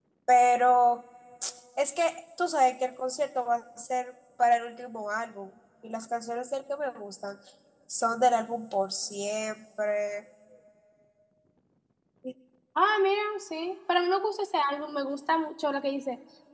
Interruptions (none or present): none